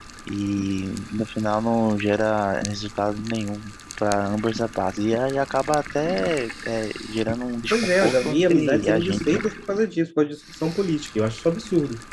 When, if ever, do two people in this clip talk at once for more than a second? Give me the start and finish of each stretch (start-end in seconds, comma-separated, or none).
7.7-9.2